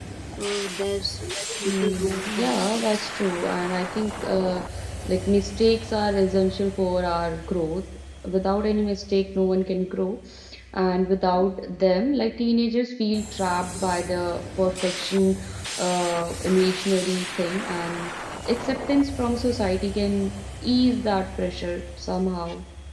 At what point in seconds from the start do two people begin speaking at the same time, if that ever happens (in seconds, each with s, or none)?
1.6 s